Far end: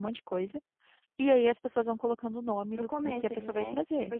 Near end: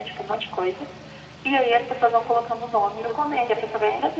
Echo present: Yes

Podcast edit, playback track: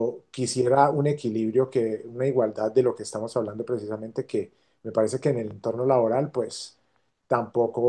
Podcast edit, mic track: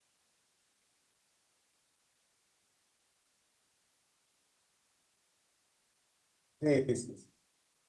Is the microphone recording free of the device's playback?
Yes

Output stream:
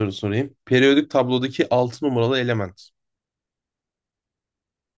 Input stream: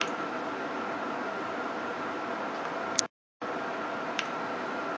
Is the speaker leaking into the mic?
No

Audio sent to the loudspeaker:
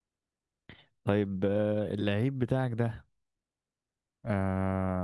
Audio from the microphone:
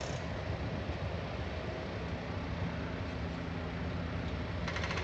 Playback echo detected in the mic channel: No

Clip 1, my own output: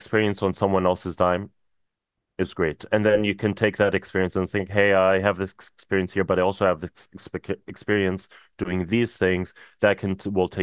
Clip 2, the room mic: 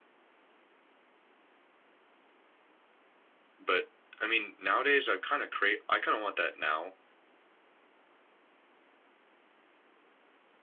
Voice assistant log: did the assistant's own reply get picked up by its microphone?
No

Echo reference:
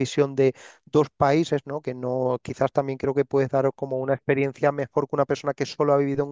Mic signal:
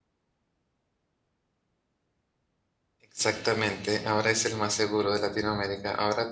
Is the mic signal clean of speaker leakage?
Yes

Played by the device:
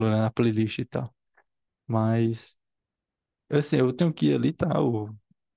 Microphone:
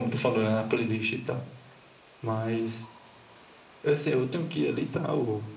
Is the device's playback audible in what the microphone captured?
Yes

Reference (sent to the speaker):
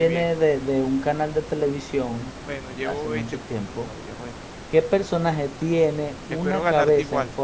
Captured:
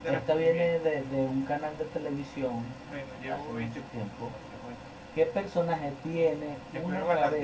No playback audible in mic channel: No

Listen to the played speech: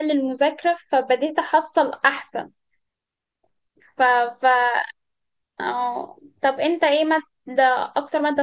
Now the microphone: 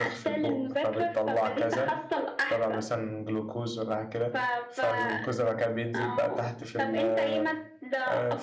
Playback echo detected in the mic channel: Yes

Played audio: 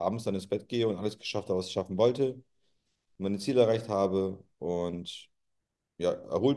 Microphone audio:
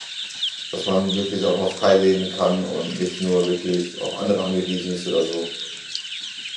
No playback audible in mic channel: Yes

